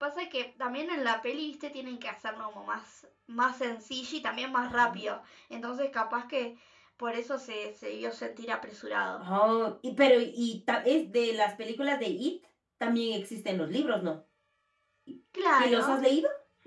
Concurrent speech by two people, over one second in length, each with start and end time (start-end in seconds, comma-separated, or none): none